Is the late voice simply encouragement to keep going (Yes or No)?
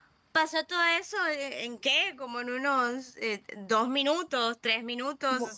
No